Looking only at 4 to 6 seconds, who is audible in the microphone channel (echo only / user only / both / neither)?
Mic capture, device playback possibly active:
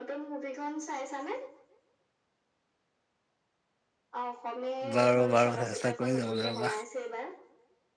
both